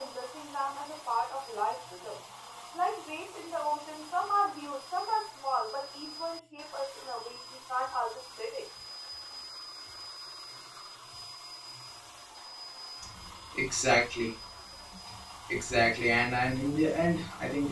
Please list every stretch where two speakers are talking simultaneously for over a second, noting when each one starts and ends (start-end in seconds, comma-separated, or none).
none